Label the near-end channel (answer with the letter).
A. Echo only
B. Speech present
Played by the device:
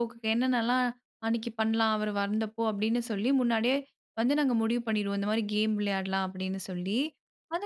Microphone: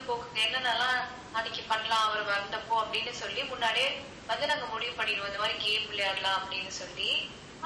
A